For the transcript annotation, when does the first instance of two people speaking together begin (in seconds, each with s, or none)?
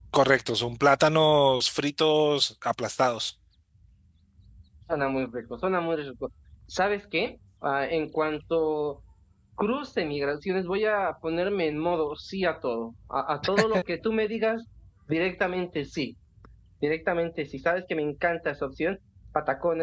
none